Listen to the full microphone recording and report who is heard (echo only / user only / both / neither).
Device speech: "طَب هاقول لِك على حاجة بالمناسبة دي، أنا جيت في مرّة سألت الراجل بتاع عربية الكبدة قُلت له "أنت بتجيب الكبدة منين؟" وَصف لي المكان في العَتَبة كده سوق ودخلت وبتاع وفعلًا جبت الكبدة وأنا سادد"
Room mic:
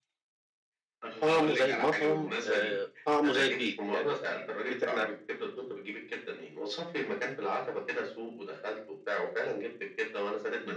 both